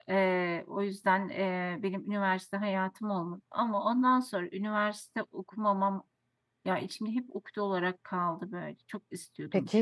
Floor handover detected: Yes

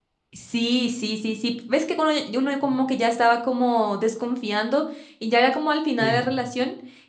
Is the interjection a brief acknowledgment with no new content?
Yes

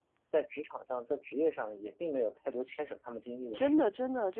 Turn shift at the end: Yes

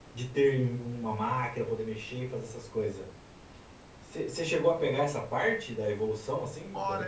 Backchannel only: No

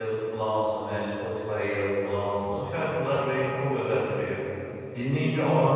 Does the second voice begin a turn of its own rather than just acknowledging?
No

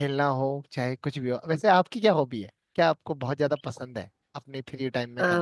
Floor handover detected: Yes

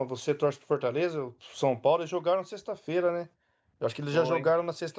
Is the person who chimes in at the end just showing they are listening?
Yes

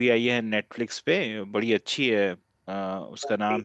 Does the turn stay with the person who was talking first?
Yes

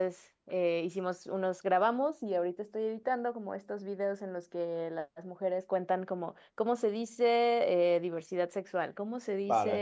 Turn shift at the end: No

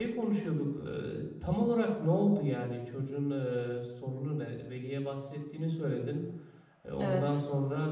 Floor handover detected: No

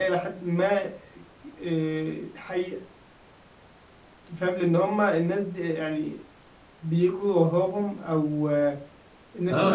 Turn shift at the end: Yes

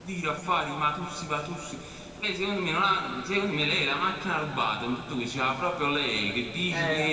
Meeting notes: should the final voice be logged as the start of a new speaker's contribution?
No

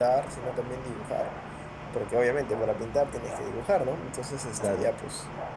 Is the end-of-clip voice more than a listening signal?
No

